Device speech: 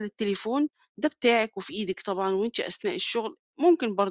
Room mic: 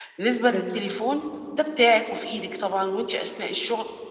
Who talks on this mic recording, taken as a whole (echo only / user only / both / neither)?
both